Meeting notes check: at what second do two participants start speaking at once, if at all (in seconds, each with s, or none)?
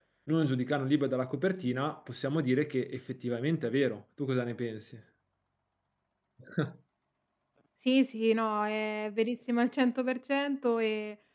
none